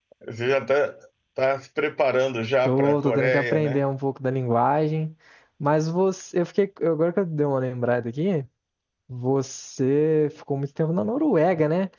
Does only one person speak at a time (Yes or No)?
No